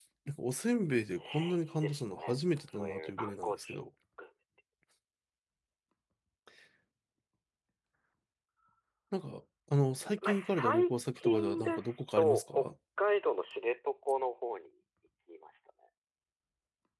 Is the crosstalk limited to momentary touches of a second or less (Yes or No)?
No